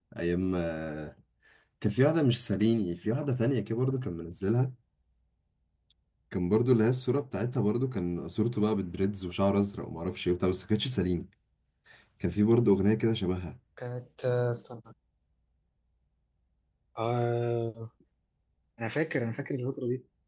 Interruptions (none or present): none